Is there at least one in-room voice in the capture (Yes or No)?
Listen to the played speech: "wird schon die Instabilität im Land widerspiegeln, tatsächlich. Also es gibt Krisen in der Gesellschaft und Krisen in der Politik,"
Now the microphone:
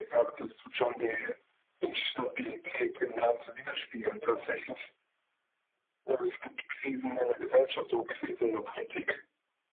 No